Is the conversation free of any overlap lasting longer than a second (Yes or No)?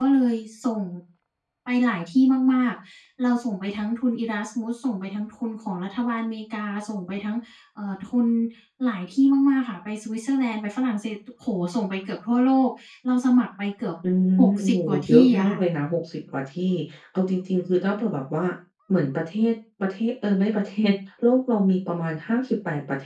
No